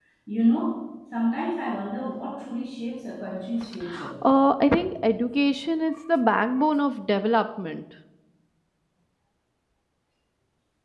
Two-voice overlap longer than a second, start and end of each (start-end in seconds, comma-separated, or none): none